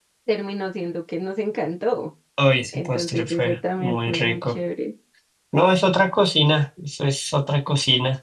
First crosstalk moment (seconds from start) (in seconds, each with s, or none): 2.7 s